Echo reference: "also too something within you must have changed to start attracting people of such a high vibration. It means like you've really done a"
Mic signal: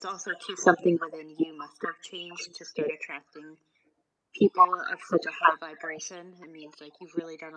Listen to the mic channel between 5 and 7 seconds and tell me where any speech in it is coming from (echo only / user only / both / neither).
echo only